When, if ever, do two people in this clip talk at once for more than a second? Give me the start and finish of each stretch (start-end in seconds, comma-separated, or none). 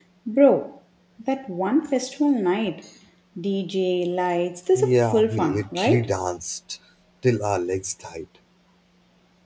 4.8-6.1